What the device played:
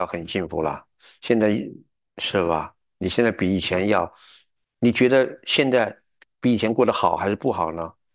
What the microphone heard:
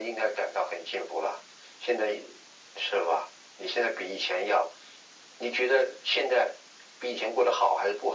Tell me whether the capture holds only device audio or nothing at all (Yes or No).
Yes